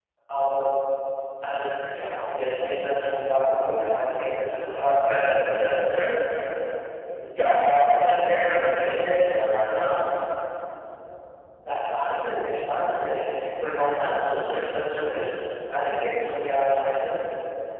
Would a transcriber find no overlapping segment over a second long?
Yes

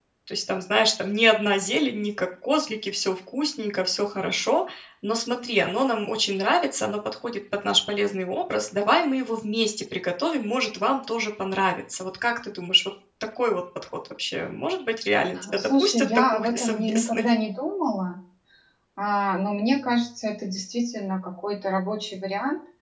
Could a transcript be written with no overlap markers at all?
No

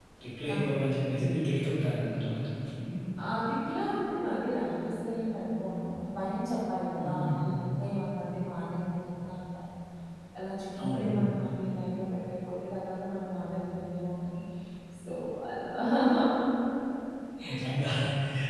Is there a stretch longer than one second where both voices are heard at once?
No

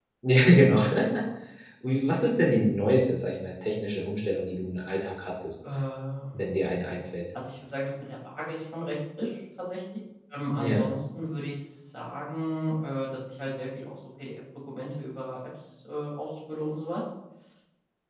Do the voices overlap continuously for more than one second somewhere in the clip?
No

